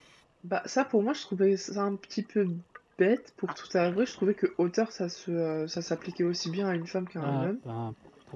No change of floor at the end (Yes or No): No